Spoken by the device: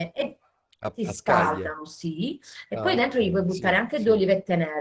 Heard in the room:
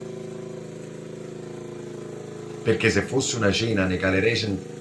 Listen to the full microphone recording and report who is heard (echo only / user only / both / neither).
user only